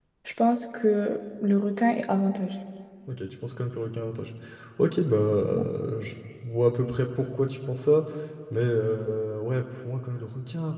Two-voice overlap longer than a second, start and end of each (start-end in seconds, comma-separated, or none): none